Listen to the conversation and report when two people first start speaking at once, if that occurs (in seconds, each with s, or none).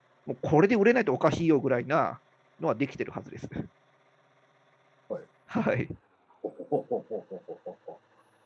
none